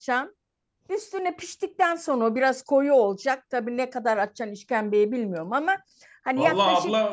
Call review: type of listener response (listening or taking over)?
taking over